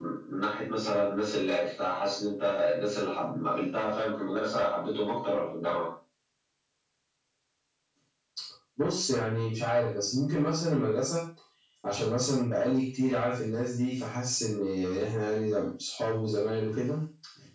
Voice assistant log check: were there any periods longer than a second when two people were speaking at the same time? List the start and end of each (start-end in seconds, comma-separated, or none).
none